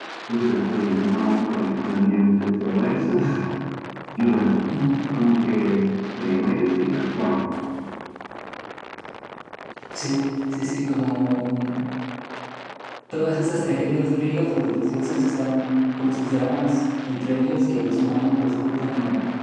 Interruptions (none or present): none